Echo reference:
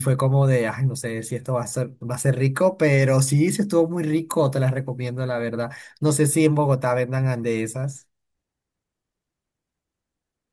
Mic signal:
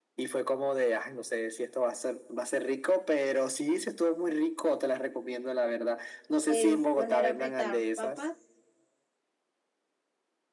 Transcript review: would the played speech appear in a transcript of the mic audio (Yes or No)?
Yes